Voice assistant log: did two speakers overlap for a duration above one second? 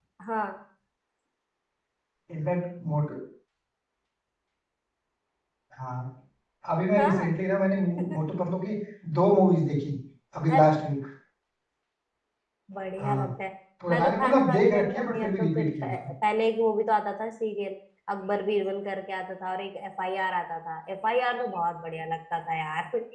Yes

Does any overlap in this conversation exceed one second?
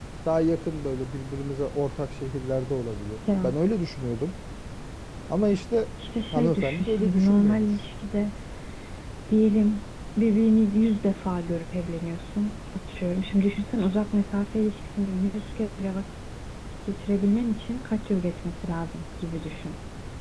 Yes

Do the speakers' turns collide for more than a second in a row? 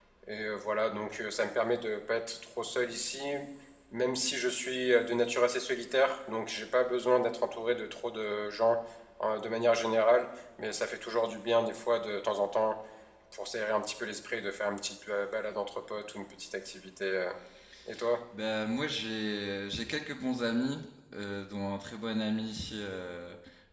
No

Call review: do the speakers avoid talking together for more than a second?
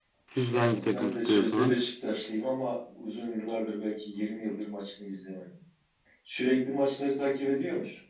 No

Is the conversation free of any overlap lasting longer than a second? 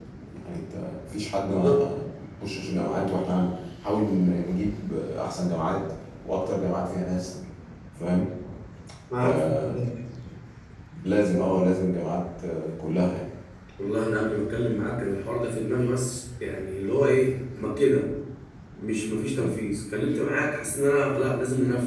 Yes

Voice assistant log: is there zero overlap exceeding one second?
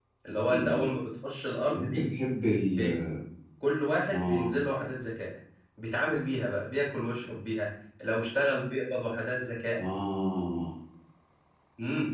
Yes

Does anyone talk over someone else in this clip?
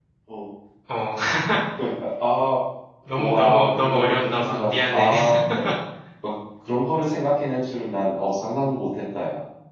Yes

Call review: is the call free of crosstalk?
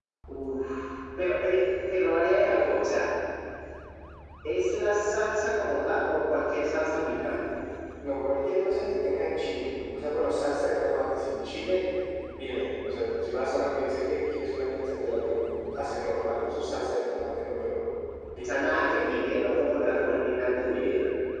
No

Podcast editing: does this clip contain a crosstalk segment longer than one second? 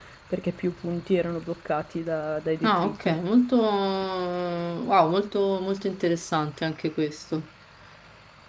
No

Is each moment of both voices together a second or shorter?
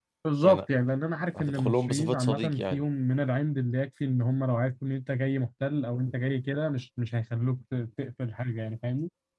No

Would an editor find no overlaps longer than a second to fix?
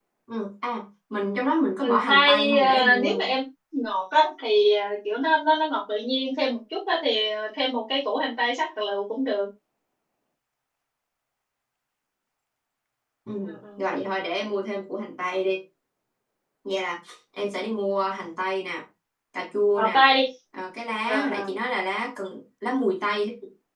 No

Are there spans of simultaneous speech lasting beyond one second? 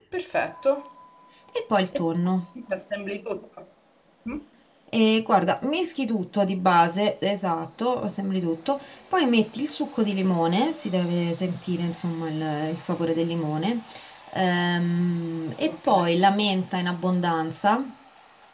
No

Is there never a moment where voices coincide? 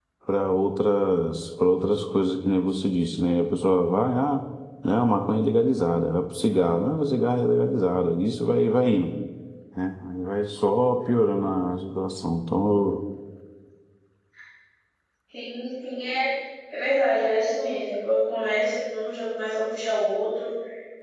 Yes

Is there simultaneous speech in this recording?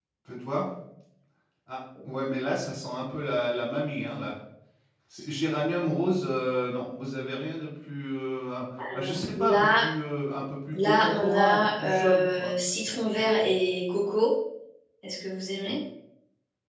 Yes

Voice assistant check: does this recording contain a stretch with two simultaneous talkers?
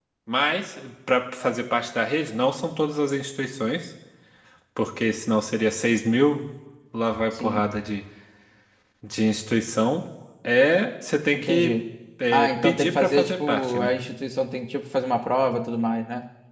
Yes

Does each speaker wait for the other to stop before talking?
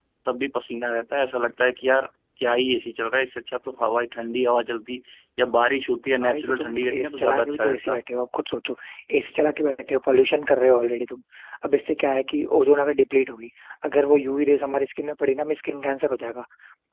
No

